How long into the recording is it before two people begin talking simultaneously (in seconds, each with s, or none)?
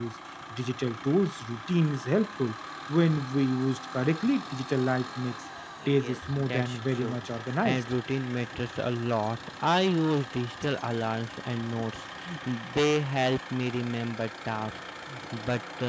5.9 s